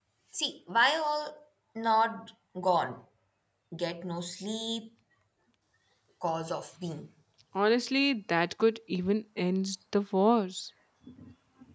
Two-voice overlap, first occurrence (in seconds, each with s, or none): none